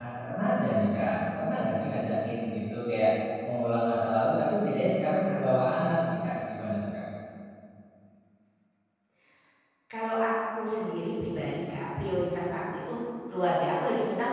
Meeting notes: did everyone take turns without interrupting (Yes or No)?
Yes